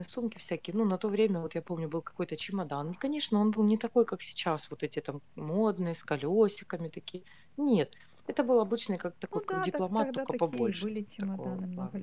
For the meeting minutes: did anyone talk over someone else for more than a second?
Yes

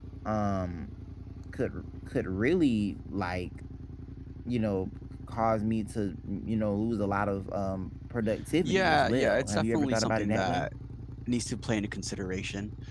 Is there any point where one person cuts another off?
Yes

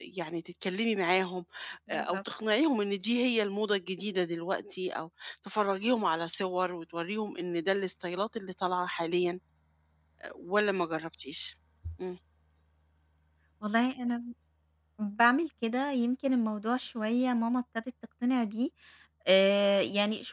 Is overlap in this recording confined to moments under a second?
Yes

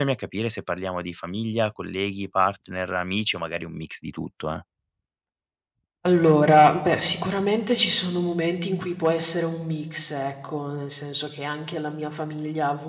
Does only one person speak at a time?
Yes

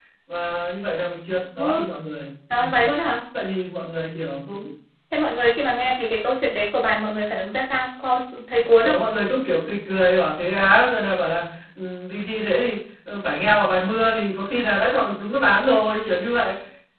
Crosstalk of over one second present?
No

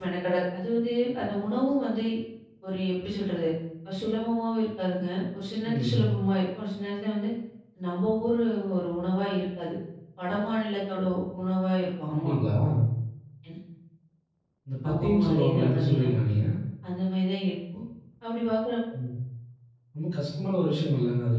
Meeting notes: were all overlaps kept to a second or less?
No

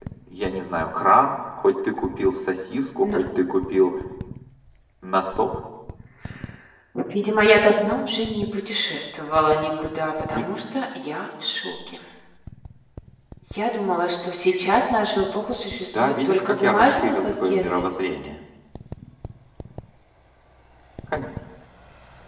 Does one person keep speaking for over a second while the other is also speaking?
Yes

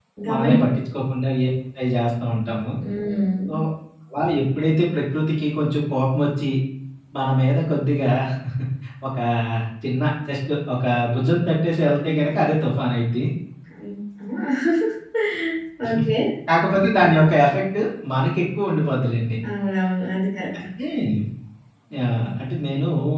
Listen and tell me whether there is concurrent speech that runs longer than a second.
No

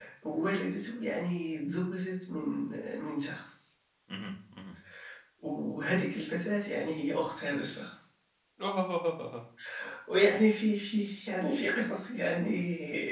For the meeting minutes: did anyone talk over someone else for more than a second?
No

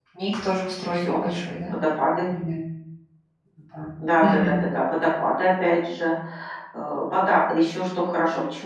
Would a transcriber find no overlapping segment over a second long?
Yes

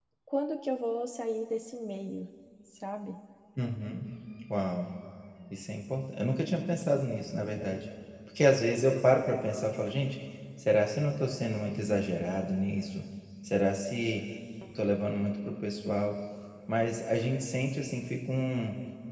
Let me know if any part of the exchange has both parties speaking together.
No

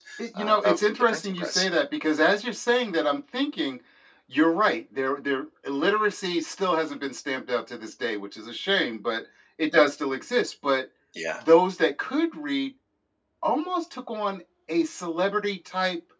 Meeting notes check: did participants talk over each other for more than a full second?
Yes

